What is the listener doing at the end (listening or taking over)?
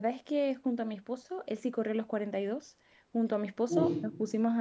listening